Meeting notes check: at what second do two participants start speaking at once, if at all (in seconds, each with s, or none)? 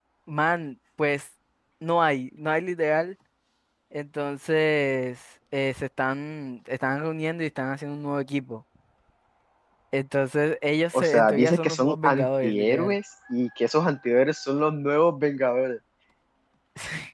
10.9 s